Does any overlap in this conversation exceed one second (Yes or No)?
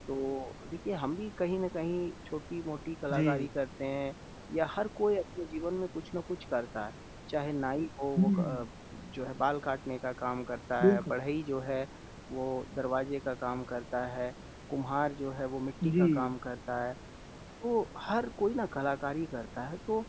No